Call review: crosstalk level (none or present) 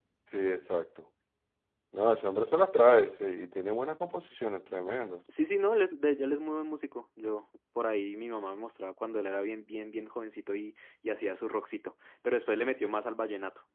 none